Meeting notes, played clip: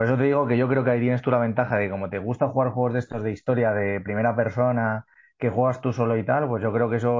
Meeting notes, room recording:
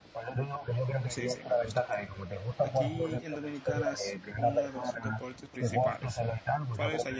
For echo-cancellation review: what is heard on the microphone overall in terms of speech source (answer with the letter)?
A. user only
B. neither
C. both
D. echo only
C